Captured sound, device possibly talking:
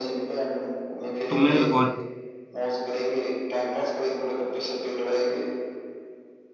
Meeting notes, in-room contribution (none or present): present